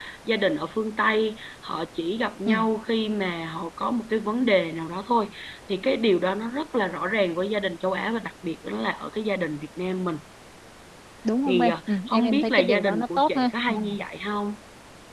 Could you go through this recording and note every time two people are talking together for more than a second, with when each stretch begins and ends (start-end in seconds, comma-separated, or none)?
11.5-13.7